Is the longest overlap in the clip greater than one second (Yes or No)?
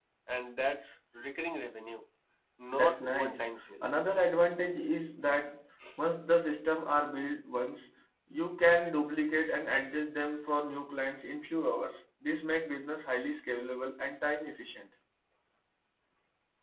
Yes